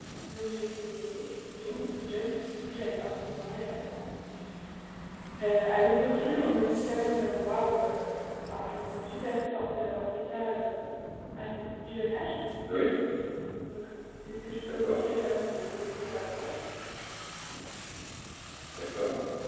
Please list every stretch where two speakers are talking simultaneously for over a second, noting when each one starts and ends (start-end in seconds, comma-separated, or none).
none